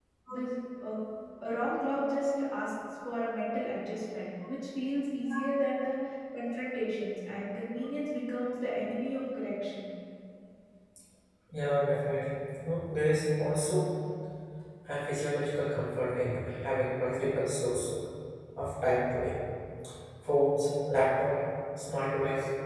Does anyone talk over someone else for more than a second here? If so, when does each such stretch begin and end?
none

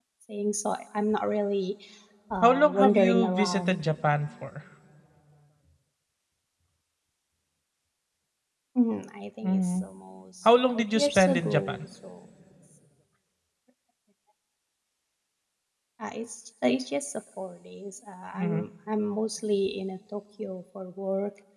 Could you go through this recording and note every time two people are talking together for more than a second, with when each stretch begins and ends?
2.4-3.8, 10.4-11.8

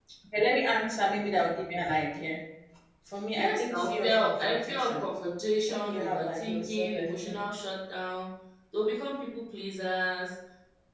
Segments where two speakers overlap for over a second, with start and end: 3.4-5.0, 5.7-7.5

